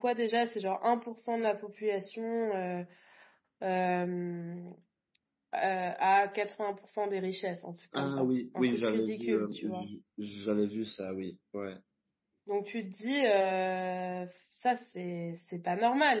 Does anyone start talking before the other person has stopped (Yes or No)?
Yes